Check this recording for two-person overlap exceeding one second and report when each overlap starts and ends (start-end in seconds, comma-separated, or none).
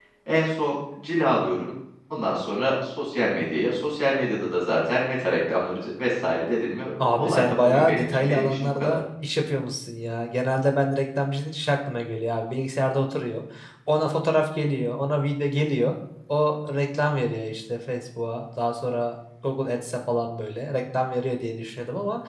7.0-9.0